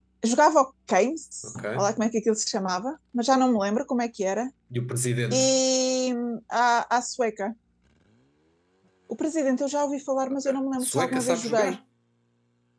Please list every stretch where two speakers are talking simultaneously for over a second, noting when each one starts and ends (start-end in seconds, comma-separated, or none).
10.5-11.8